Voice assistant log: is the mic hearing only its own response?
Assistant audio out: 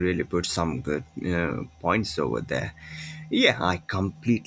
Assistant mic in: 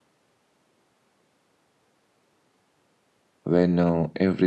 No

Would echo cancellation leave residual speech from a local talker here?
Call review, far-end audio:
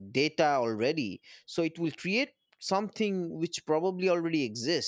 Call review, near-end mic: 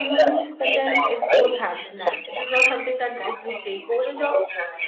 Yes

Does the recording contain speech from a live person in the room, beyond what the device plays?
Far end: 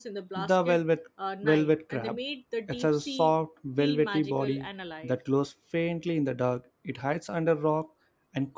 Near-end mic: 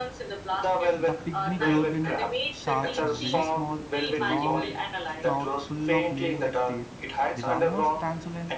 Yes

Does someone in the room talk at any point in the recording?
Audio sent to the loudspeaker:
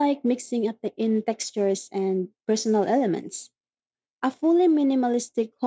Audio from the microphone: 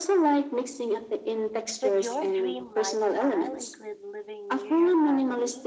Yes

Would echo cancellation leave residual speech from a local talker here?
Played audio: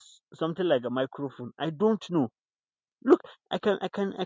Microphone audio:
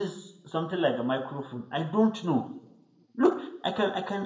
No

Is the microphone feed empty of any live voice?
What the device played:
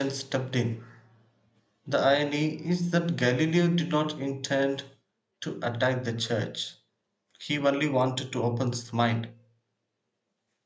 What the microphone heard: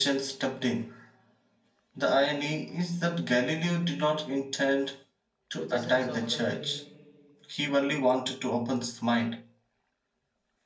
No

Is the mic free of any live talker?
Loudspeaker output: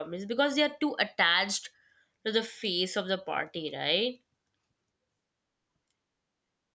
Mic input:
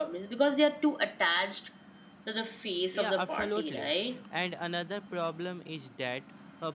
No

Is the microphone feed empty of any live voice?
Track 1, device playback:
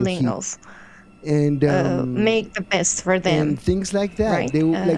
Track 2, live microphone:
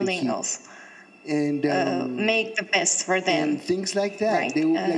Yes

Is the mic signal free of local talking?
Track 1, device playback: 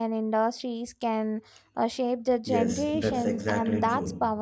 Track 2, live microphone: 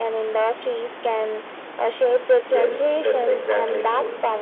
Yes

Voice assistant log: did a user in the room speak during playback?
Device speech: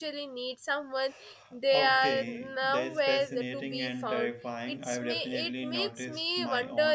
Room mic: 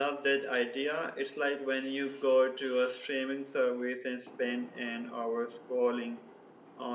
Yes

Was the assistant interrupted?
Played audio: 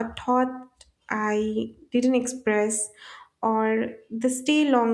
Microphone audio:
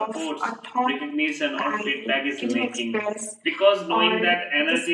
Yes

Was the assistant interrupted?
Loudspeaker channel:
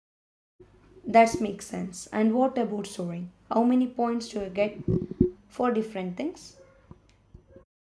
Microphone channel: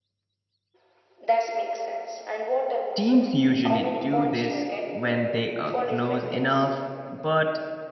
Yes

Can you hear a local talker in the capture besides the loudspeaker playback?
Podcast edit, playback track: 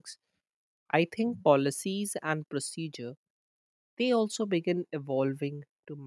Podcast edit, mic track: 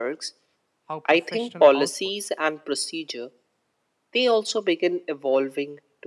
Yes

